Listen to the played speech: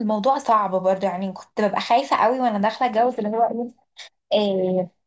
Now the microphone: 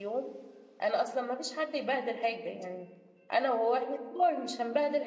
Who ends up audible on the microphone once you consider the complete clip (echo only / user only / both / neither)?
user only